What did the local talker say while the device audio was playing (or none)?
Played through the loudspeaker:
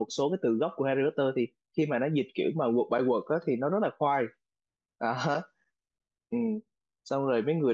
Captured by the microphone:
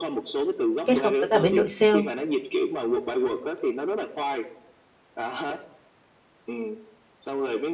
kết hợp với cả bên đội sale